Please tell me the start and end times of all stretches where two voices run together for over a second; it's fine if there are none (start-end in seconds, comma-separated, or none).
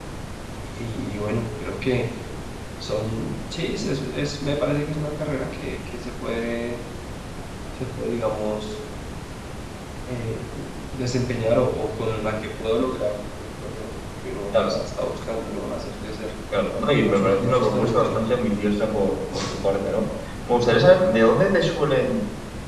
17.0-18.3